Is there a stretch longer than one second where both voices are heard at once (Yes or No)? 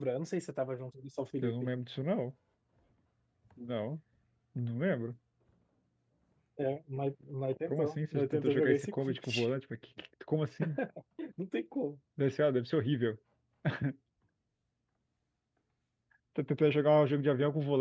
Yes